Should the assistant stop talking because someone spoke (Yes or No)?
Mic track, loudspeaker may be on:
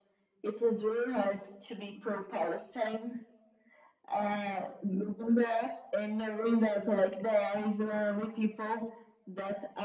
No